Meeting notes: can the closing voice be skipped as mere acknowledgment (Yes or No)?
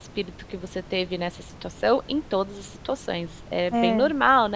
Yes